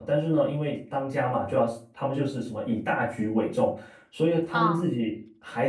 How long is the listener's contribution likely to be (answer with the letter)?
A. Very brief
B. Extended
A